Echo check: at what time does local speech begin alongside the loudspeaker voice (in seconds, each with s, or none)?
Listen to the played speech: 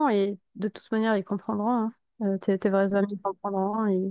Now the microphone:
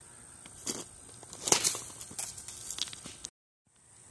none